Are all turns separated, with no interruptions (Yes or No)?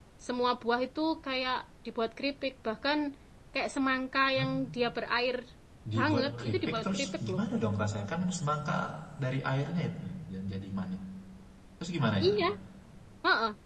No